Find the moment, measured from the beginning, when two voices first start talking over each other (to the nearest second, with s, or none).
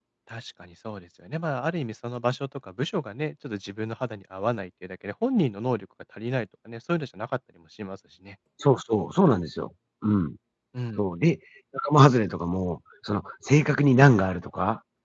none